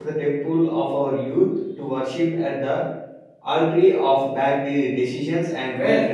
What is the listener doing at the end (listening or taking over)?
taking over